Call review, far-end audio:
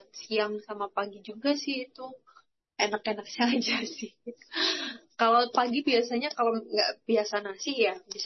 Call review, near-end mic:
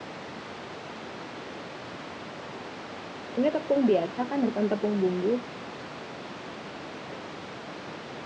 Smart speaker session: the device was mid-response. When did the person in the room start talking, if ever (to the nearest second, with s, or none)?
3 s